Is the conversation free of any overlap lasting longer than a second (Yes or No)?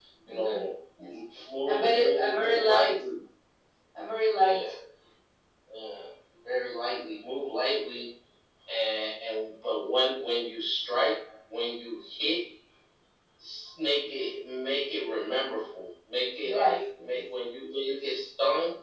No